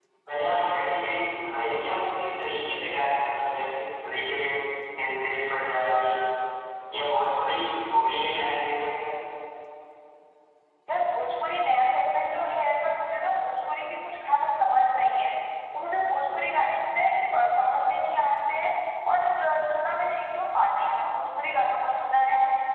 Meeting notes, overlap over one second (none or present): none